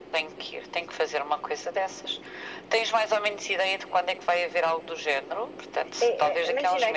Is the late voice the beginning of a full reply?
Yes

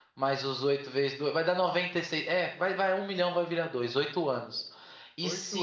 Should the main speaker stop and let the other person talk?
No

